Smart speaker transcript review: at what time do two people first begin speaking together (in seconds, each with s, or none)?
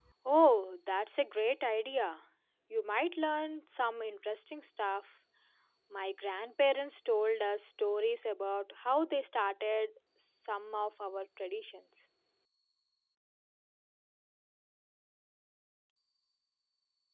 none